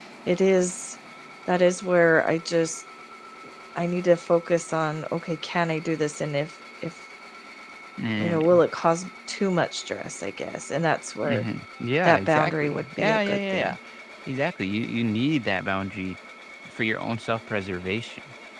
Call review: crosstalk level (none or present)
present